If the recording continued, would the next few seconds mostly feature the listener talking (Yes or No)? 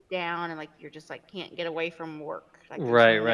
Yes